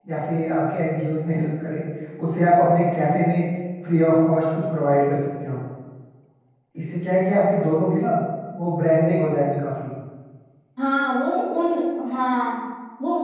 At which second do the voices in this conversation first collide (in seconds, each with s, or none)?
none